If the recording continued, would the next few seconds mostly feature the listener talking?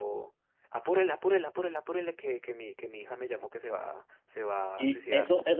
Yes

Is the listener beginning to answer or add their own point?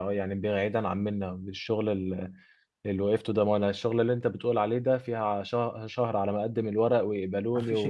Yes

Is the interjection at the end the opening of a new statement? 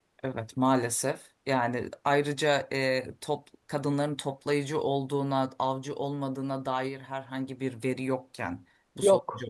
No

